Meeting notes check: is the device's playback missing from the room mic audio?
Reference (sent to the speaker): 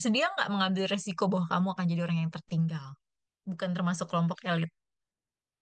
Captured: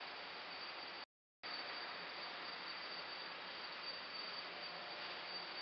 Yes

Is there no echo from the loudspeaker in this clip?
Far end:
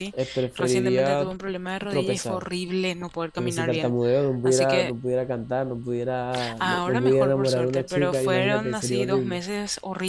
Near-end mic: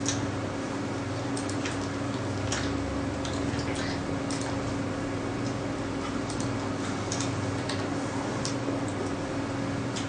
Yes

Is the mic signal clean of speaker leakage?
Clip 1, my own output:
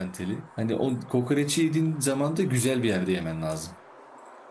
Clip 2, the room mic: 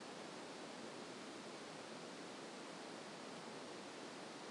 Yes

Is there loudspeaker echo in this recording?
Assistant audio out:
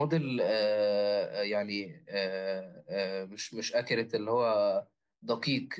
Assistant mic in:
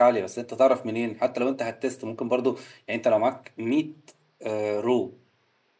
No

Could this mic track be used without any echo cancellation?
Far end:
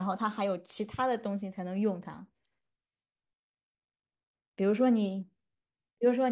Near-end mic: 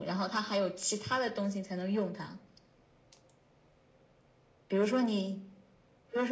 No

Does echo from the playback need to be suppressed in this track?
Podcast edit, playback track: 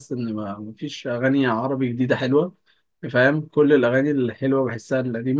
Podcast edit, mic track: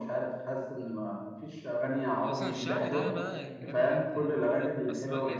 Yes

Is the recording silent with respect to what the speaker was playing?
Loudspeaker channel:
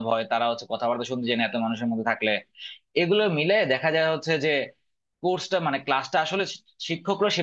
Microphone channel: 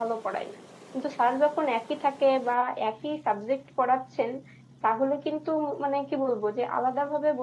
Yes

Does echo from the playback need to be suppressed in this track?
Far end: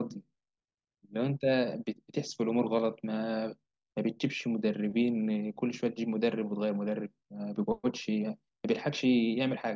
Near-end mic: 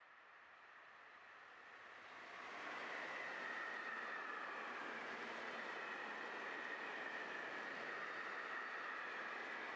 No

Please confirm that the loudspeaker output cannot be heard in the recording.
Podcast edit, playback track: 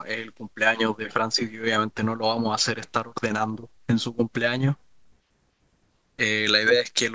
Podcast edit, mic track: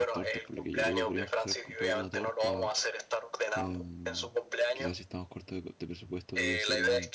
No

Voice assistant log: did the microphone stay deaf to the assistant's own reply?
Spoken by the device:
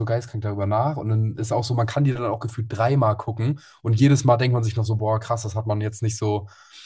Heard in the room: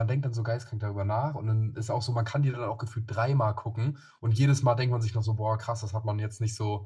No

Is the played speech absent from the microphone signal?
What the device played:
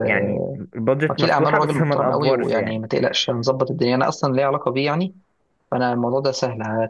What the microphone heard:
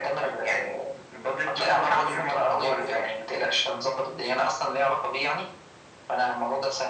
No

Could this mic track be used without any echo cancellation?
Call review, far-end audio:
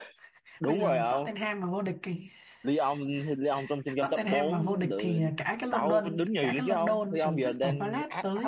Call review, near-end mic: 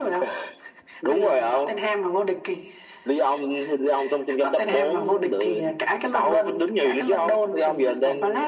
No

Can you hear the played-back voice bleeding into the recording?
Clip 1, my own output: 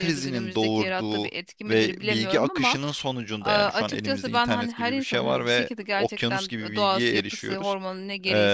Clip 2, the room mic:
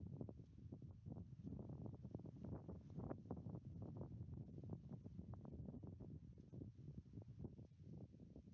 No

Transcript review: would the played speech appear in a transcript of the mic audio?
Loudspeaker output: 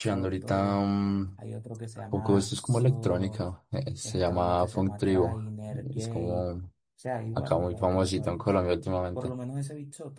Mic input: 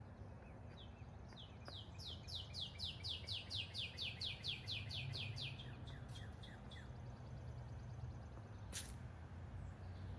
No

